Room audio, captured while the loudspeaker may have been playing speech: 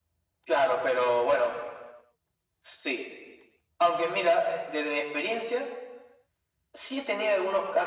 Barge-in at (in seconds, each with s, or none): none